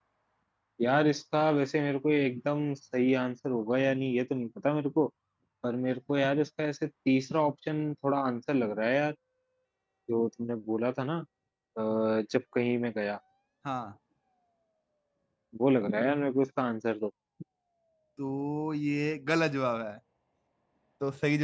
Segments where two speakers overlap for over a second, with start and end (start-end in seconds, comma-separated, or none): none